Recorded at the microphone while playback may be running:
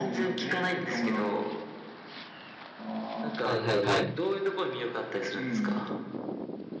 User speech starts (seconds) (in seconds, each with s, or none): 3.4 s